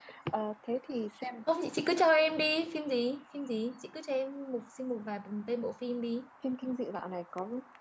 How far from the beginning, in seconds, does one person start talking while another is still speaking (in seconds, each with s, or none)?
none